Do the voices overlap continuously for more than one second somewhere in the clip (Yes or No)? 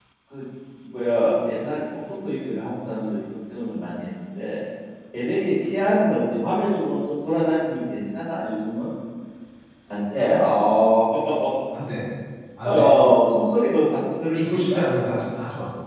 No